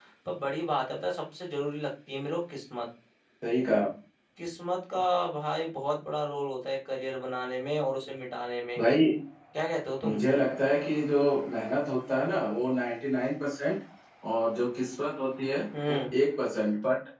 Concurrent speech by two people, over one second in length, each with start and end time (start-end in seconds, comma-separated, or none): none